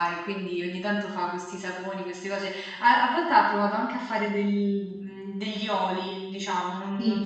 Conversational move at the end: listening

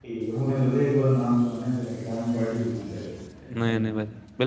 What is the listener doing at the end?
taking over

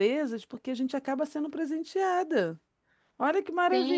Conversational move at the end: taking over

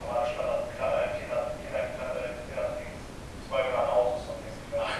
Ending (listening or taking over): taking over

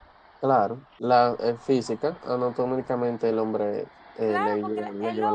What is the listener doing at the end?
taking over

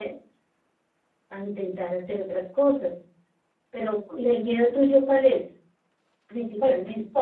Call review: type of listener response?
taking over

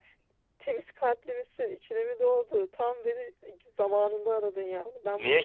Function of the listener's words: listening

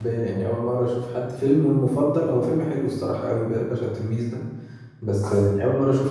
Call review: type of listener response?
listening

